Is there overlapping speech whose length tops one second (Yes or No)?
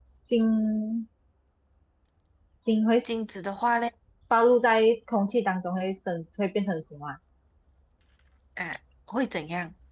No